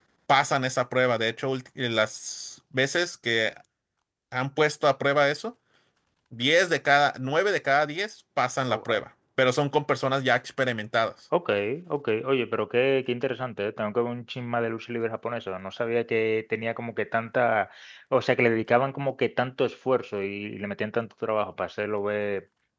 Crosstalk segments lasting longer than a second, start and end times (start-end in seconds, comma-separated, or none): none